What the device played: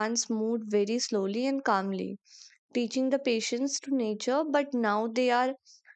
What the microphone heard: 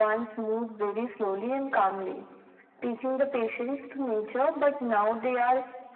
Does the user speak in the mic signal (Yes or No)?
No